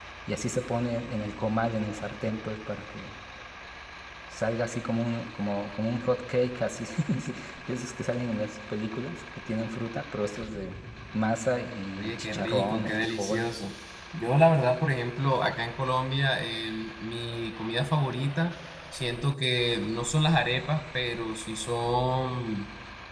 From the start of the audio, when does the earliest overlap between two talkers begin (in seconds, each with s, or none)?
12.0 s